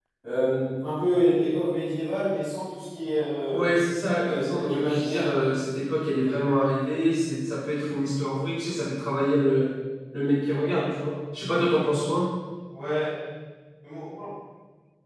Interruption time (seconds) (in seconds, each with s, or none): 4.1 s